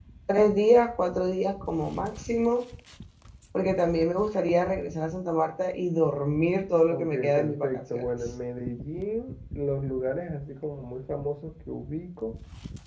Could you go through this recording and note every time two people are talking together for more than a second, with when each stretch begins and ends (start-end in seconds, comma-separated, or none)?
6.9-8.3